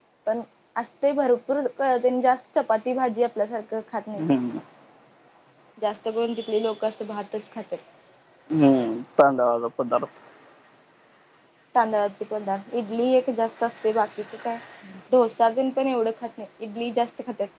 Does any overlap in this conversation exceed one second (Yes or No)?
No